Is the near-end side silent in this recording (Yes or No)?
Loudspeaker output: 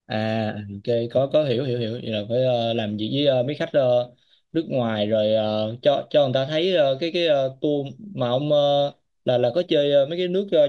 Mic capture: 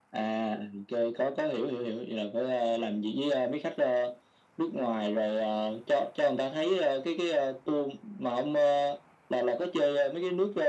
Yes